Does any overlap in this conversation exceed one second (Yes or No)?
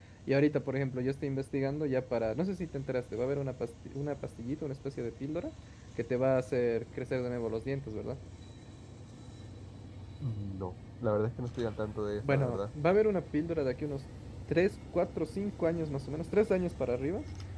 No